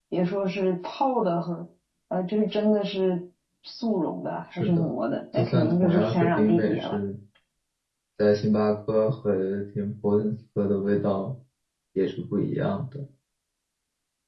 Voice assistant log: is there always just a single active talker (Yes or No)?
No